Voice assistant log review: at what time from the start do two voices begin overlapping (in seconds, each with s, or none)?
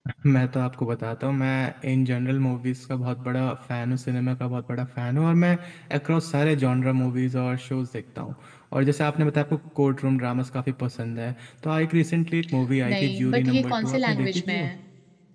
12.8 s